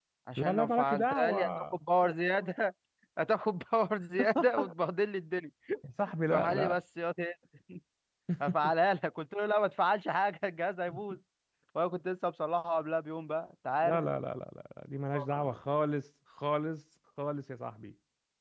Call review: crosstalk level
present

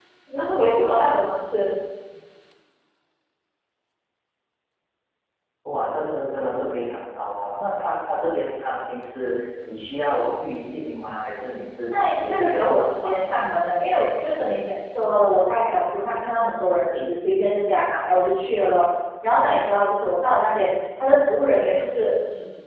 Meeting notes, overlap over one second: present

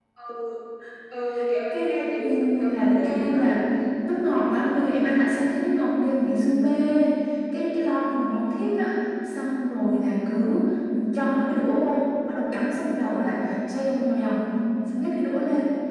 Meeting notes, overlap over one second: present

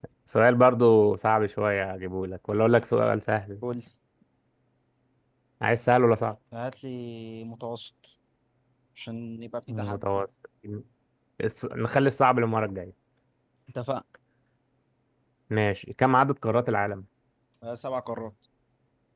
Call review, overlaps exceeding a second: none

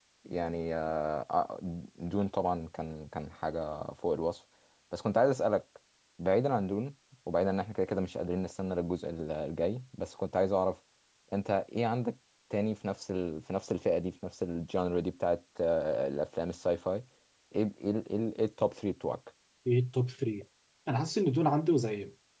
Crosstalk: none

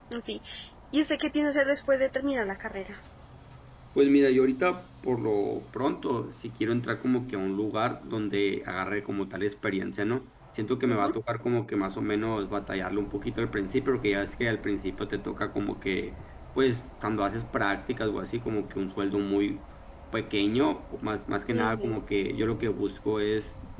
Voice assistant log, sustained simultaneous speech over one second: none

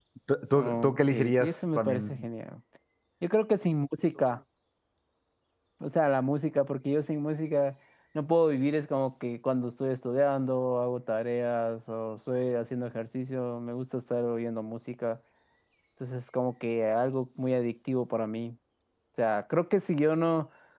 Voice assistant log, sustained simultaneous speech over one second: present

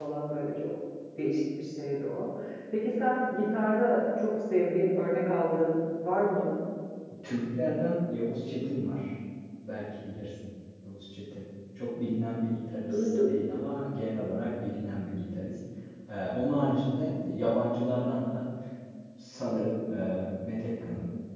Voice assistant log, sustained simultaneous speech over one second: none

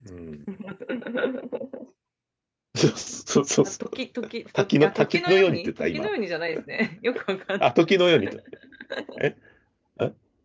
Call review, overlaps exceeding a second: present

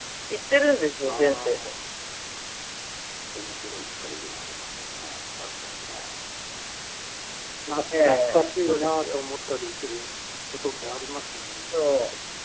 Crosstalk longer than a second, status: present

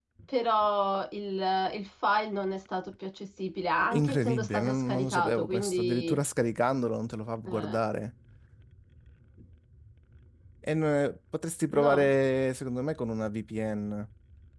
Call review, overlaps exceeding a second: present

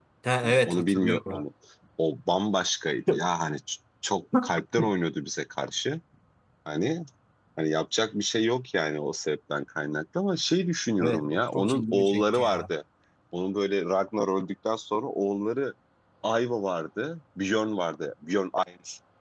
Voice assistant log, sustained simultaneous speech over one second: present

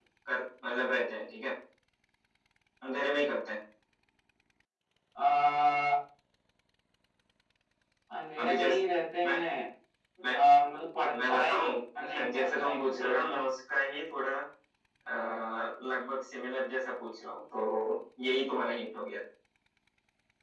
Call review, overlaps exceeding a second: present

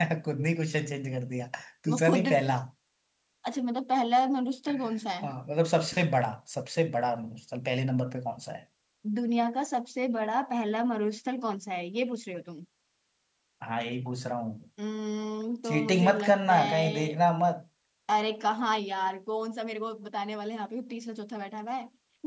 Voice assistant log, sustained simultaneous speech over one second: present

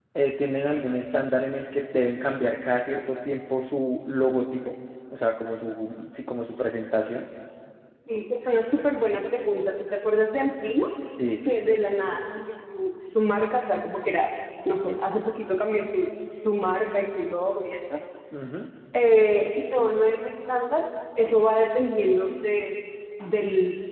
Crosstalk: none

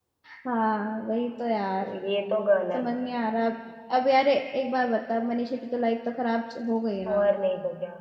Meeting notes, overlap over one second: none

